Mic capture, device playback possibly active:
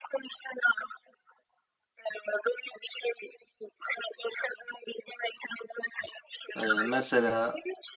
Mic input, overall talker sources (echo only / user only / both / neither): both